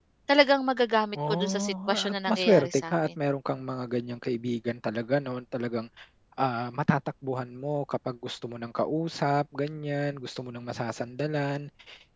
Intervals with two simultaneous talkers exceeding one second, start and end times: 1.3-3.1

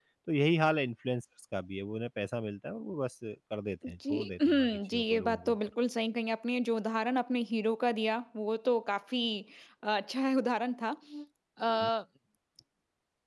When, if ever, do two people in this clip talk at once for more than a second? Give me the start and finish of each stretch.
3.9-5.5

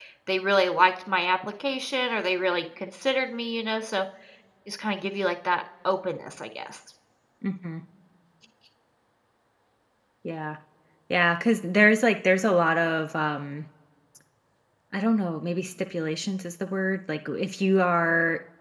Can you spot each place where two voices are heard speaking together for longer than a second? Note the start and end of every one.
none

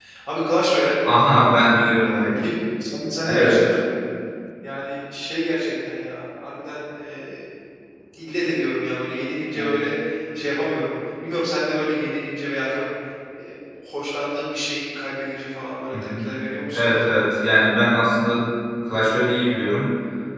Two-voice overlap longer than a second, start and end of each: none

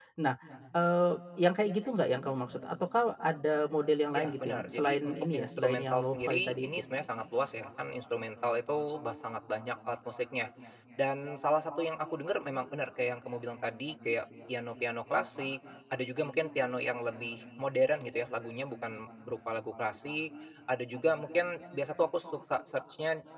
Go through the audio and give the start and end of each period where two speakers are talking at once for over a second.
4.2-6.7

